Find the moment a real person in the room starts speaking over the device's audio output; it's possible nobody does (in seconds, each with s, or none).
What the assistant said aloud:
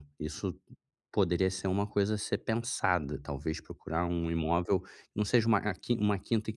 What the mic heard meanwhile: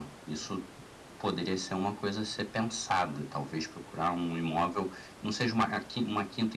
none